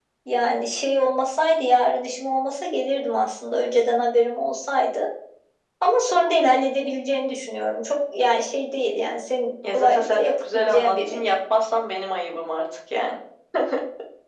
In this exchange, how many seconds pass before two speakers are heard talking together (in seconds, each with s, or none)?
9.6 s